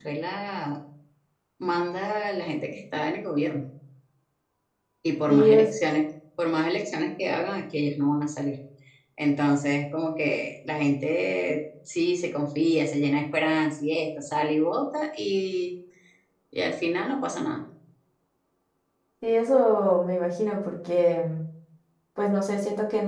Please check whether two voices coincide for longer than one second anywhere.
No

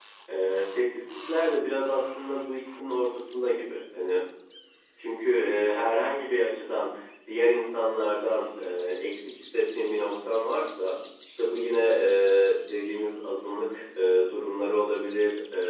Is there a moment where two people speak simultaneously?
No

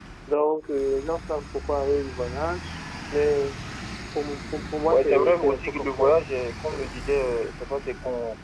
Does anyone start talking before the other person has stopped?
Yes, from 4.9 s

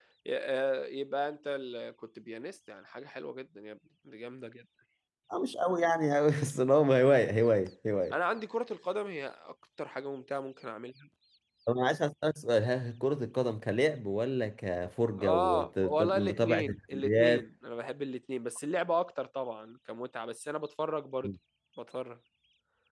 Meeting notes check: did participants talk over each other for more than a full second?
Yes, from 15.2 s

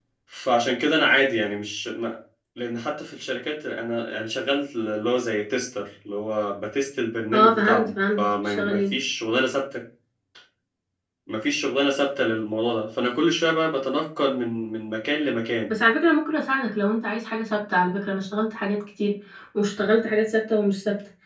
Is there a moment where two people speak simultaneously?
Yes, from 7.3 s

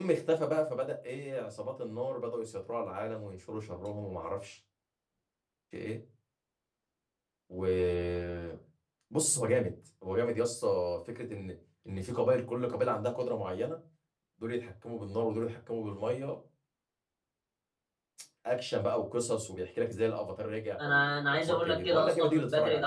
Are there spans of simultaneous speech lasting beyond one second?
Yes, from 20.8 s

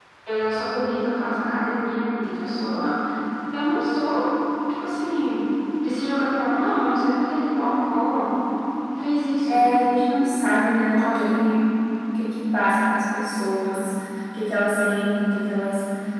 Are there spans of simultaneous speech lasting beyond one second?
No

